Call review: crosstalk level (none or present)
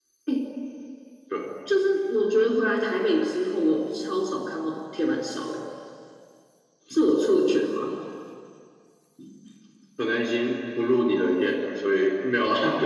none